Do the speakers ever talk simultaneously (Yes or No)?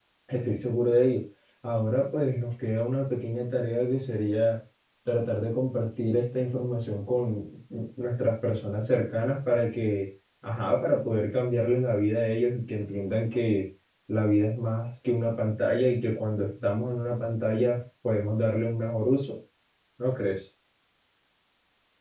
No